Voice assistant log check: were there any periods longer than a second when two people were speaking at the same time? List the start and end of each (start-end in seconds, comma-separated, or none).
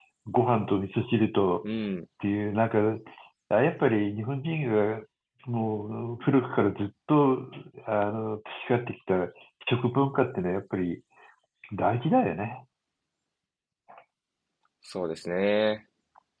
none